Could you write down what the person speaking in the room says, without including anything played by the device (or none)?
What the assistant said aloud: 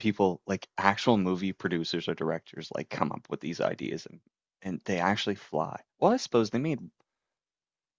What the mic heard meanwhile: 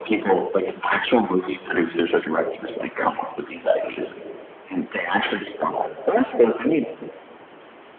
none